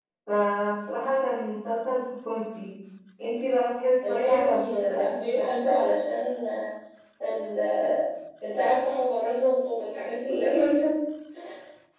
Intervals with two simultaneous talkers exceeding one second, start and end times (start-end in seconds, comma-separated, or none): 4.1-5.4